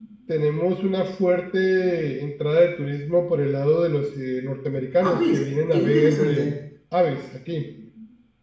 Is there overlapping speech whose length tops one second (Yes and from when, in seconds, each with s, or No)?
Yes, from 5.0 s